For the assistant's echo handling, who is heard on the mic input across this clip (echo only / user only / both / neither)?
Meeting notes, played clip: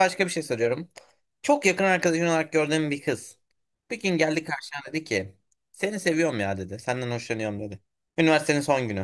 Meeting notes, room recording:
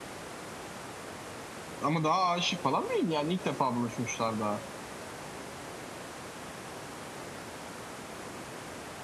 user only